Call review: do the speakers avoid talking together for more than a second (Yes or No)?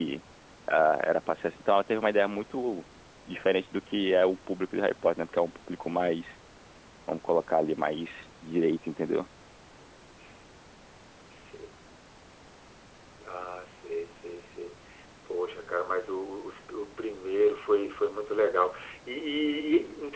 Yes